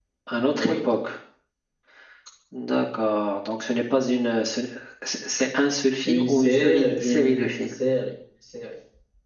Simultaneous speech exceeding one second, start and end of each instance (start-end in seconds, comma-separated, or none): 6.1-7.7